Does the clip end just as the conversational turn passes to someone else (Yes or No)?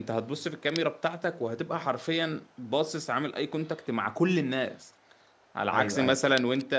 No